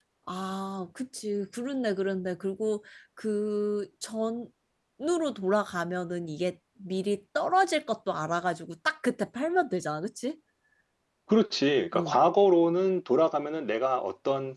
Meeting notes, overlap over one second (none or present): none